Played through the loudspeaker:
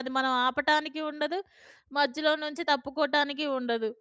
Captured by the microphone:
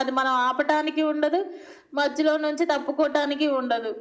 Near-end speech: none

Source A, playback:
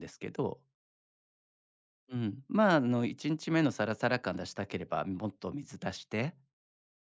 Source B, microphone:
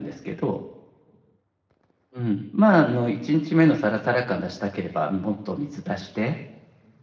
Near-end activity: none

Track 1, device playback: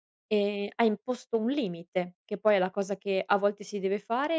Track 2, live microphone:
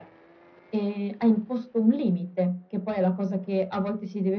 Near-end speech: none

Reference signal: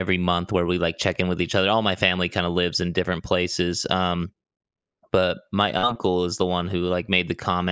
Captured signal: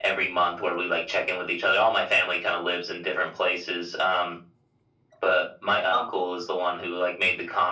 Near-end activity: none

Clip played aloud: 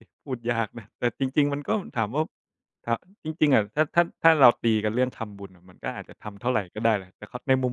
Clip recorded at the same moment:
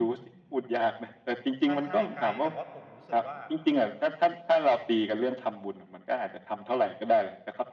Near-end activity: present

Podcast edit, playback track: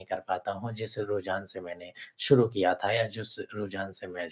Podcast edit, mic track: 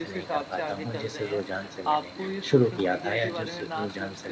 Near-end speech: present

